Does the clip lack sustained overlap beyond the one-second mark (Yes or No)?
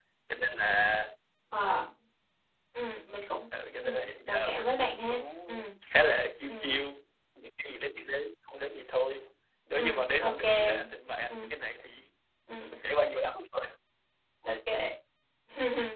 No